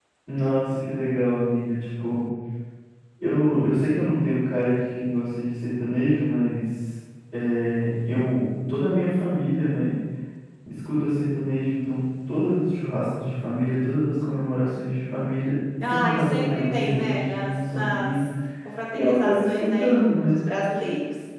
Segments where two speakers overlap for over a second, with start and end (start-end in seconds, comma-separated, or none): 15.9-18.2, 18.9-20.4